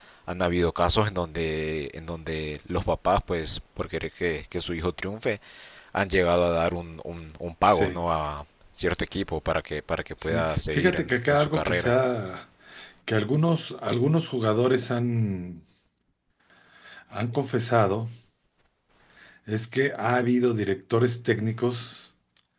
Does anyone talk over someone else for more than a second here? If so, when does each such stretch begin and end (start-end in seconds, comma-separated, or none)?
10.2-11.9